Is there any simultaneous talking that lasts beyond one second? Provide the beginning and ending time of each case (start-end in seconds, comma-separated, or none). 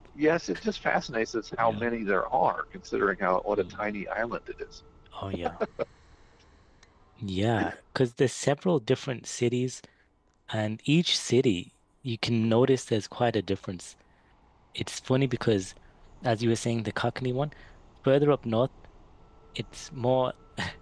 none